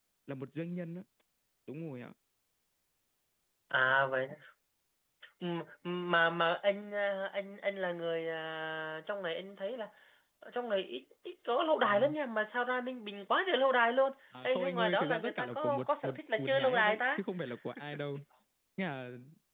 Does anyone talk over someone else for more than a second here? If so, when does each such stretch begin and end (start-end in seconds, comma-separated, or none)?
14.4-17.2